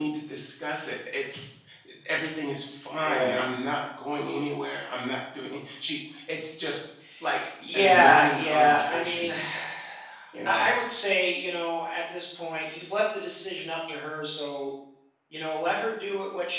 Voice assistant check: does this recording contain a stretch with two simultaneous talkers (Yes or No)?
Yes